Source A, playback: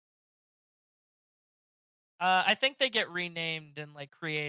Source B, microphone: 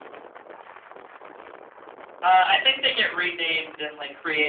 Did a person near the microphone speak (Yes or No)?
No